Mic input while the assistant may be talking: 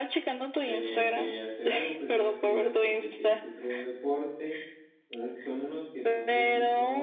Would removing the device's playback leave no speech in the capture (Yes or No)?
No